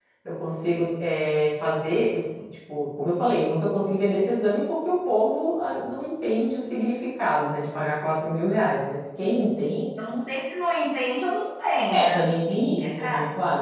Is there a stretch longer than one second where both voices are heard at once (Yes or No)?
No